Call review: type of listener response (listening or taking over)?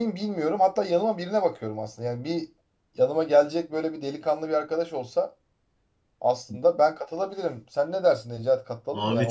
taking over